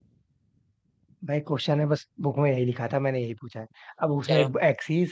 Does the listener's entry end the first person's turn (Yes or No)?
No